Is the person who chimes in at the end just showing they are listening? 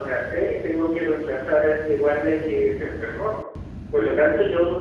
Yes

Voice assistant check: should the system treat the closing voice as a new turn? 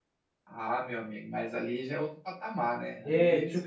Yes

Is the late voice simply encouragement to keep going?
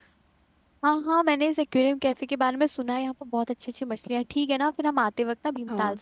Yes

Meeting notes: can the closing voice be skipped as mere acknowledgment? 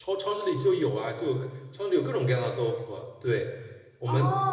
Yes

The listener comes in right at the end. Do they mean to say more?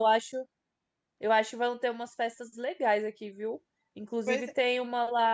No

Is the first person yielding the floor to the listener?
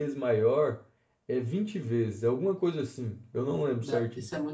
Yes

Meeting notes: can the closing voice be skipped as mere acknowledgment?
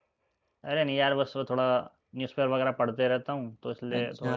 Yes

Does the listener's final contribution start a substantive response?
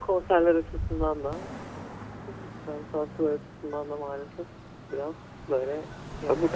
Yes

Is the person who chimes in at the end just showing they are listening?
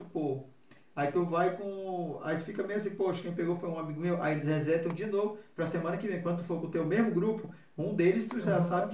Yes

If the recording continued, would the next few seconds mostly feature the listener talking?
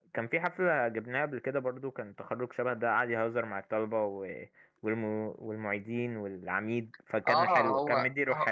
Yes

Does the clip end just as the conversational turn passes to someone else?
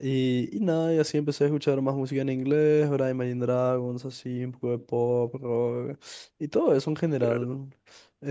No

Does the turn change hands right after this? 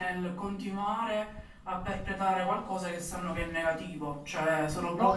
Yes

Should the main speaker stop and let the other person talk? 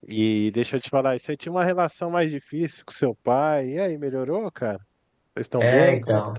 Yes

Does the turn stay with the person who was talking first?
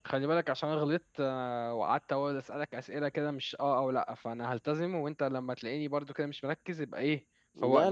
No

